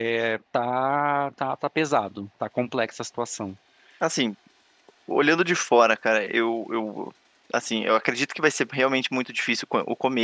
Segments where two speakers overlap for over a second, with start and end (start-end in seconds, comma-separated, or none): none